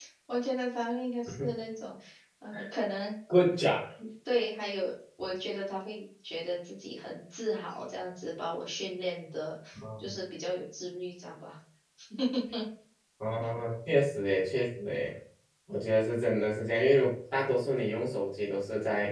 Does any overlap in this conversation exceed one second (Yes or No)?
No